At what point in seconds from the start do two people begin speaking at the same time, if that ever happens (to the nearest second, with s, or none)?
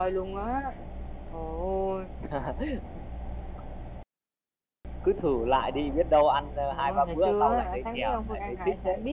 7 s